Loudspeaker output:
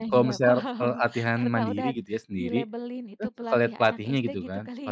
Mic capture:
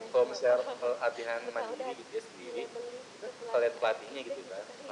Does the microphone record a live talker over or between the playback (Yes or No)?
No